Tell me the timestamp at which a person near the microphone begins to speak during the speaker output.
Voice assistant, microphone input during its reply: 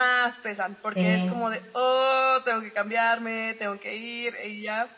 0.9 s

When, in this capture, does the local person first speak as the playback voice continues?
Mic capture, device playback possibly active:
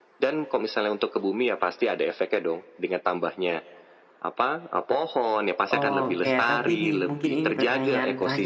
5.7 s

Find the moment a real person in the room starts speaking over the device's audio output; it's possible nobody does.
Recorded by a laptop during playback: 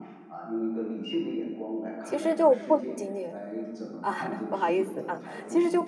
2.0 s

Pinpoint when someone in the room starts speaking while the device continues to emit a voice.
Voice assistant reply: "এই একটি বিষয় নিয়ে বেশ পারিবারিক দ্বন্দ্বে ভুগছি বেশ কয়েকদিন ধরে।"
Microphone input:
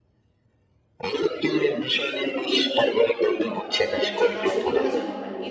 3.7 s

